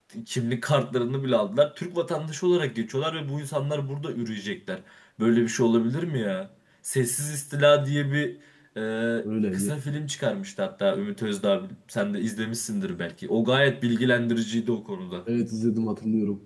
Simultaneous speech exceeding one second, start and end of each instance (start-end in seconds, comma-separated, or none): none